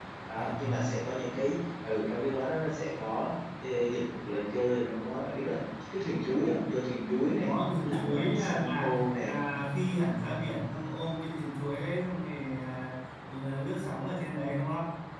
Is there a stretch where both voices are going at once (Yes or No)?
Yes